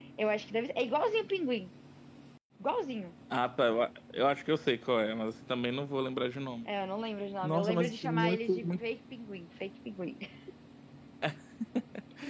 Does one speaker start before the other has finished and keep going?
Yes, from 7.4 s

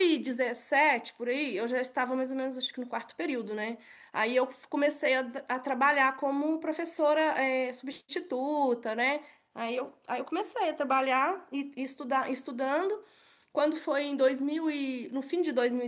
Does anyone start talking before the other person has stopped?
No

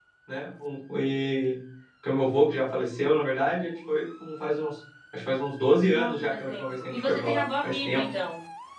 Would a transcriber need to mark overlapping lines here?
Yes, from 5.9 s

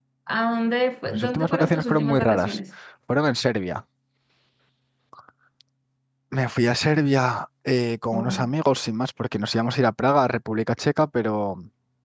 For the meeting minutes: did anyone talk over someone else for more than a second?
Yes, from 1.0 s

